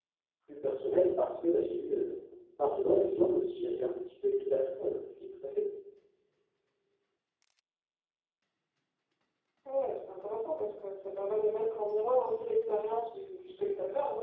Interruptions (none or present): none